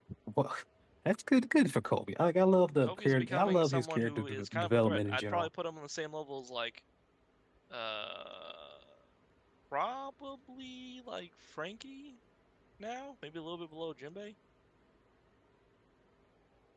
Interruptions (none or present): present